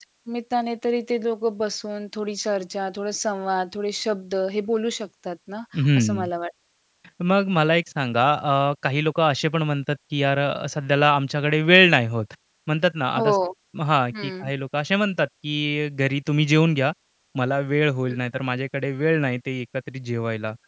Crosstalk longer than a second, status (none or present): none